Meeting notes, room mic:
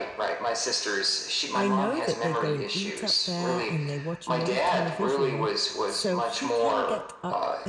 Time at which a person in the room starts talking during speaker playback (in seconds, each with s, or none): 1.5 s